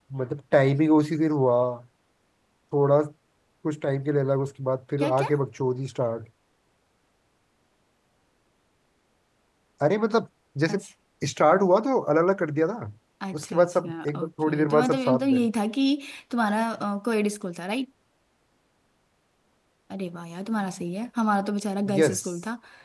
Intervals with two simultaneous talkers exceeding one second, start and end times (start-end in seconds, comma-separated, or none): 13.3-15.4